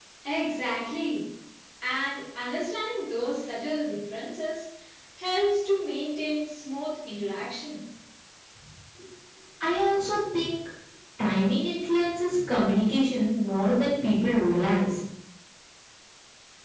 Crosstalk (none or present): none